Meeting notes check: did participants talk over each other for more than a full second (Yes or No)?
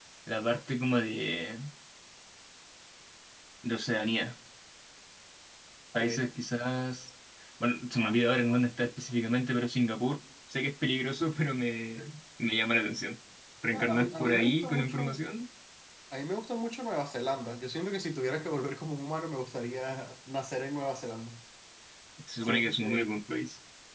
Yes